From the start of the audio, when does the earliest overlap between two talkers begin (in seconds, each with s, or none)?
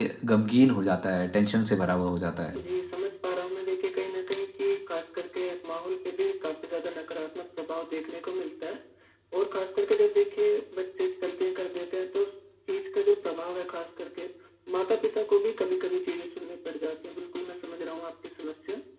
none